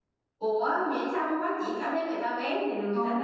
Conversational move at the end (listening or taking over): taking over